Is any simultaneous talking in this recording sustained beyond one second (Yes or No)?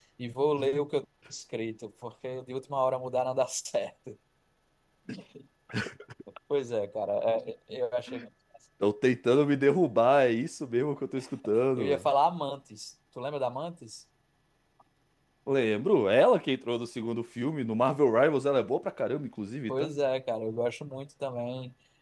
No